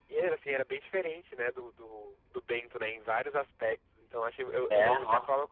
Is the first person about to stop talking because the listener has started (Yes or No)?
No